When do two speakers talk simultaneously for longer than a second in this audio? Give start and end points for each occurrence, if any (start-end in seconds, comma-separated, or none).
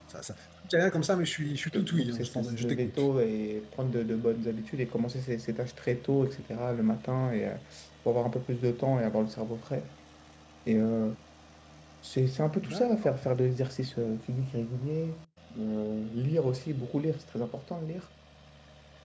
1.7-3.1